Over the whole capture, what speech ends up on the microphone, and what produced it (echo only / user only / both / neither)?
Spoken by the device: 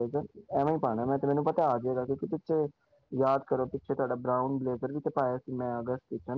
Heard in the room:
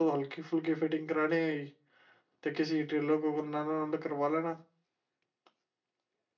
user only